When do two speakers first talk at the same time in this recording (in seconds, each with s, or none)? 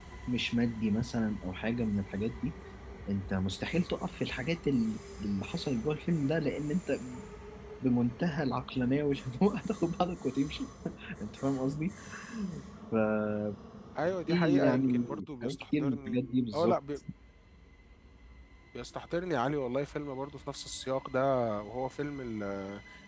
14.3 s